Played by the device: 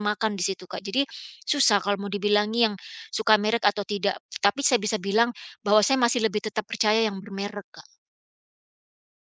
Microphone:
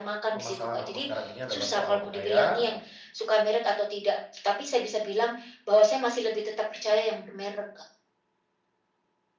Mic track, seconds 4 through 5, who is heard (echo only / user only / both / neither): echo only